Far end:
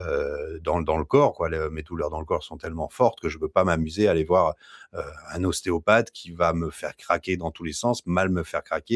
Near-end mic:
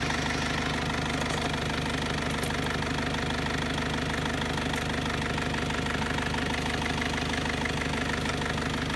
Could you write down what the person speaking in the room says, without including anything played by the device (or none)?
none